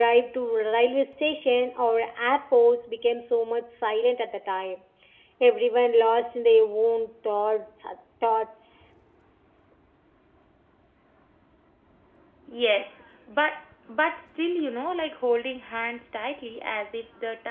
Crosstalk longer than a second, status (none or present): none